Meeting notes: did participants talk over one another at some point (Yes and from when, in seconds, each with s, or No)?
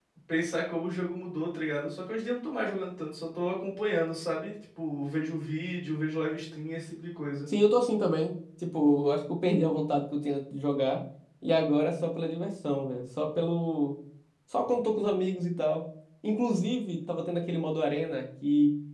No